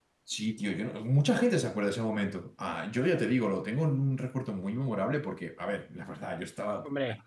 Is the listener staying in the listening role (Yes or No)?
Yes